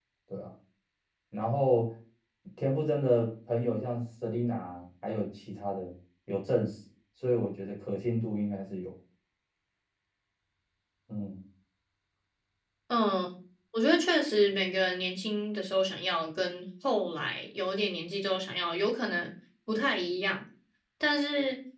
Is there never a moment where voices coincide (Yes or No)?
Yes